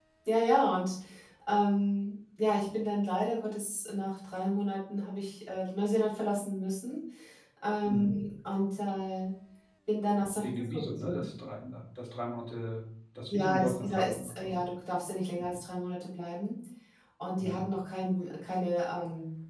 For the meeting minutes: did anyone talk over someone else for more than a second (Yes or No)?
Yes